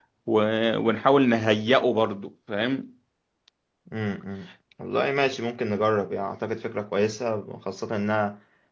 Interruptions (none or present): none